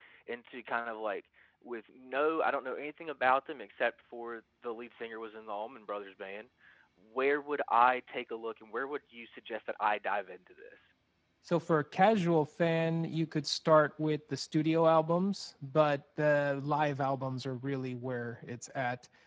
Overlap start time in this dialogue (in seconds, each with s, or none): none